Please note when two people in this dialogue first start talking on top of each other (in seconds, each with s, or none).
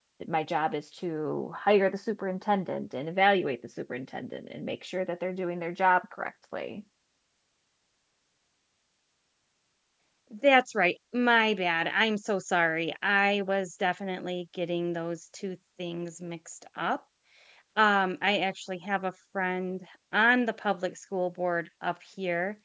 none